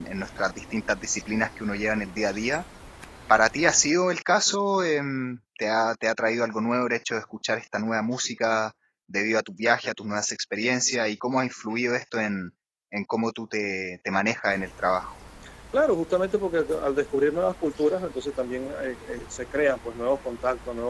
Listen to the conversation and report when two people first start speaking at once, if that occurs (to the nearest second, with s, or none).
none